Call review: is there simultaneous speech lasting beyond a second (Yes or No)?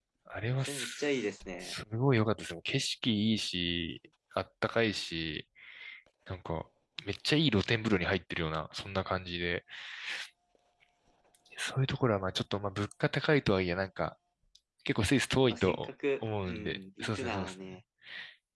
Yes